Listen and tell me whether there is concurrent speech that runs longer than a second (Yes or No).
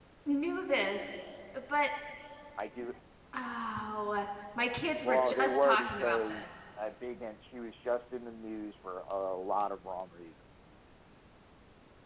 Yes